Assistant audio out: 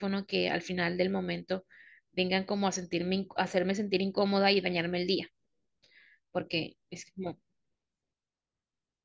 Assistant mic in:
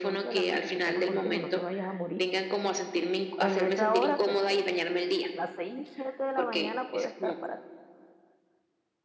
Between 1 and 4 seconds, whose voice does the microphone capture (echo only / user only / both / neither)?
both